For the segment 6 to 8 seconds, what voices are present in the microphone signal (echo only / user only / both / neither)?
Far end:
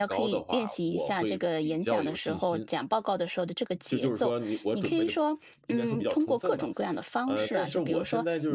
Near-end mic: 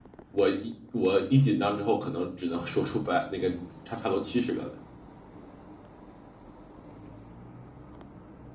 neither